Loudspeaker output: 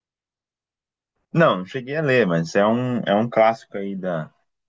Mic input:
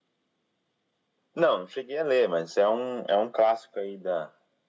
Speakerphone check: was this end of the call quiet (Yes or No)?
Yes